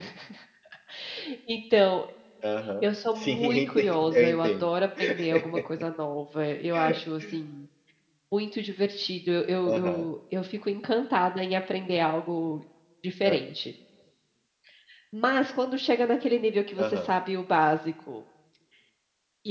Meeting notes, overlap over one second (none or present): present